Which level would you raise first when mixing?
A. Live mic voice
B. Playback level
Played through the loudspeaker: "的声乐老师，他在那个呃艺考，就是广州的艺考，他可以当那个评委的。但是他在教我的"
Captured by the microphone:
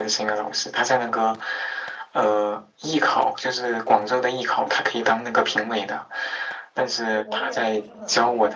A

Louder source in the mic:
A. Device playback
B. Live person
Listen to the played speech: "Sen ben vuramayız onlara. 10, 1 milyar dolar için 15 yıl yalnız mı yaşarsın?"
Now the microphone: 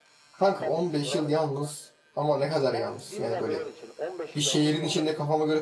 B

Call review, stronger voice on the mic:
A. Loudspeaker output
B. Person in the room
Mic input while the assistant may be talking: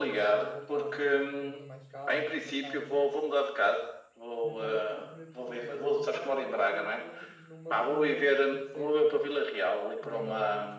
A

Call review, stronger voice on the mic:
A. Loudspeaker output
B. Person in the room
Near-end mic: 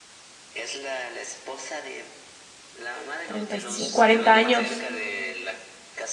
B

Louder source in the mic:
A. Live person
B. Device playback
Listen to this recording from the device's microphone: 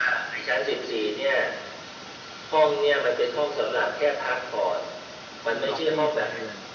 B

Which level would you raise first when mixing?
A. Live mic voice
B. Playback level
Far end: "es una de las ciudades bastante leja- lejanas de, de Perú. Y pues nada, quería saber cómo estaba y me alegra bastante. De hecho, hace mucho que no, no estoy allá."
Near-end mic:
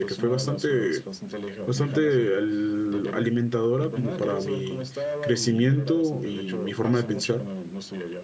B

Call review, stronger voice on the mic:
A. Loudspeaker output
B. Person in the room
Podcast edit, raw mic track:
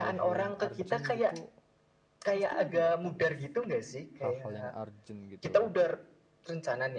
A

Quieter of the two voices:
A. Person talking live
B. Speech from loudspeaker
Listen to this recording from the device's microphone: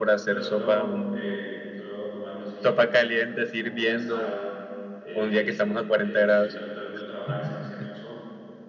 A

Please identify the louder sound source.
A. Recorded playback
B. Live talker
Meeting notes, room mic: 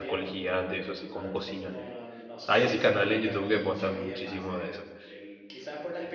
B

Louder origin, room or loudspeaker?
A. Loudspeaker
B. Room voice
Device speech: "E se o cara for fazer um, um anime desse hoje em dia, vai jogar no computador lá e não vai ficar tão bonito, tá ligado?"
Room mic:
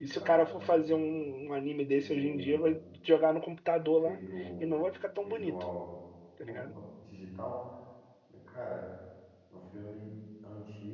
A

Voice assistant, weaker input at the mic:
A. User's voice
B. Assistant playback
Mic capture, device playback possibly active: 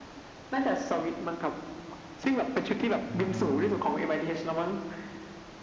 A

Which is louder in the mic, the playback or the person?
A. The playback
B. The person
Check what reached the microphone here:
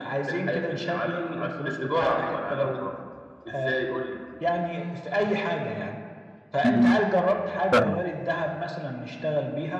B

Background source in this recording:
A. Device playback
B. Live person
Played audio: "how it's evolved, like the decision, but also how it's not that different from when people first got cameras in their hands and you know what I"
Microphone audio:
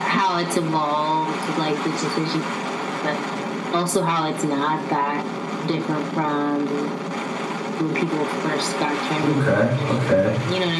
A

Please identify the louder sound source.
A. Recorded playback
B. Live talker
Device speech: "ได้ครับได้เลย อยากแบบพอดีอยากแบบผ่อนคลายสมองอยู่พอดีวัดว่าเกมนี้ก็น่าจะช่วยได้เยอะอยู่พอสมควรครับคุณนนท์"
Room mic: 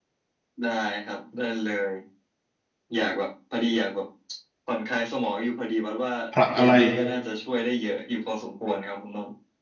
B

